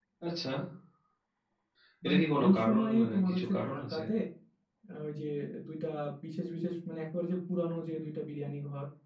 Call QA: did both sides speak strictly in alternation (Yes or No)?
No